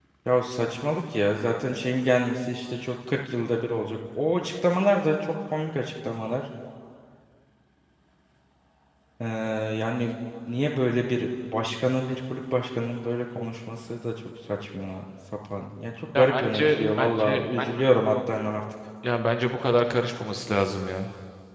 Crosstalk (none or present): present